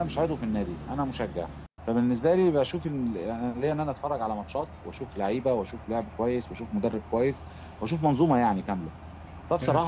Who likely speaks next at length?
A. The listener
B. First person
B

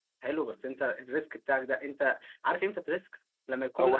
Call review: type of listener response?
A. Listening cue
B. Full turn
B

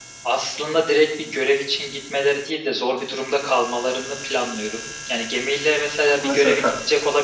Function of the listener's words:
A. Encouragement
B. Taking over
A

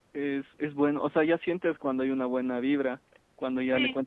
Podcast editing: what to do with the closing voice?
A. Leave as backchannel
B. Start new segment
A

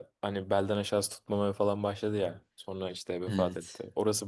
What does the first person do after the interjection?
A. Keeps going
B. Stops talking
A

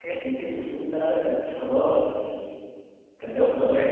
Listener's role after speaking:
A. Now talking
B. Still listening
A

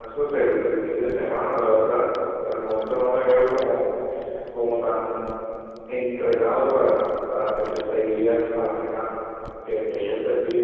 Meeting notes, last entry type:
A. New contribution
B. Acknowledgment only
B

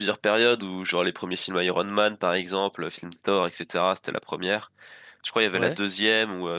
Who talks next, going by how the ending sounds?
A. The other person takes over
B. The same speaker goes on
B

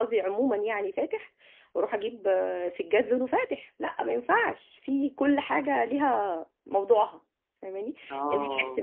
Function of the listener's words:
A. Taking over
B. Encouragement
B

